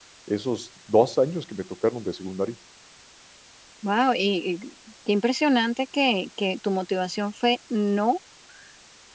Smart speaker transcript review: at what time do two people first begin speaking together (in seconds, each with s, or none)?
none